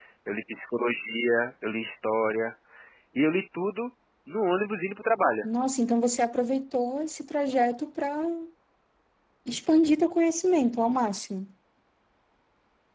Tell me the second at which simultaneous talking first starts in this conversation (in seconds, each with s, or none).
none